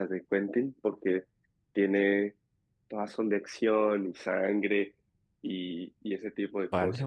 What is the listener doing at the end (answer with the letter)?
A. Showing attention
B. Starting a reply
B